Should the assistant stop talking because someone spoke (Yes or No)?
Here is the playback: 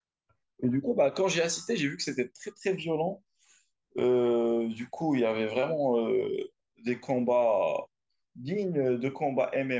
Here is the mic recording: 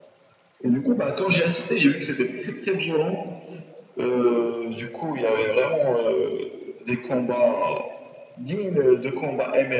No